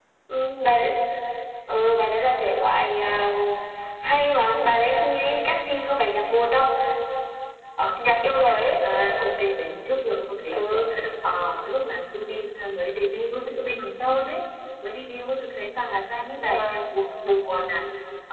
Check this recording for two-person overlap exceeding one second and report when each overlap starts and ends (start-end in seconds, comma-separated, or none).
none